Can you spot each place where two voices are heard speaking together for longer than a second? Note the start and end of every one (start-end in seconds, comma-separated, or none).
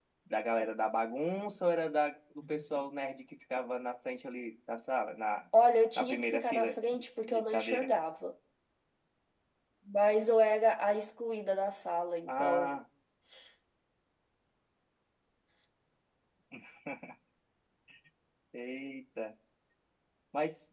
6.0-7.9